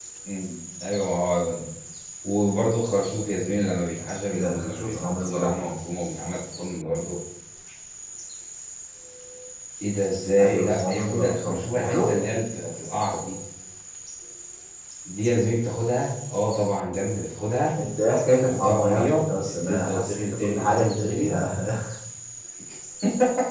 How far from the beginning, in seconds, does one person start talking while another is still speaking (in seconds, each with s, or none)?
4.3 s